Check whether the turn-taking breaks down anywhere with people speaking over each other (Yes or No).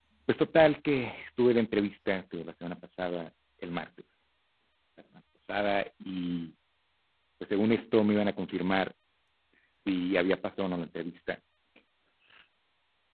No